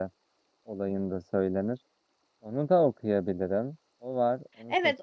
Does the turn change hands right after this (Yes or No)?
Yes